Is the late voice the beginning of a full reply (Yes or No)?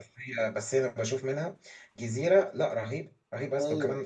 No